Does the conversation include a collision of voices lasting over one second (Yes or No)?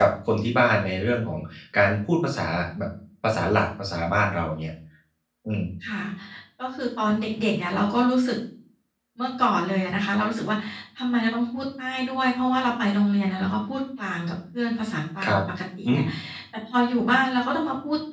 No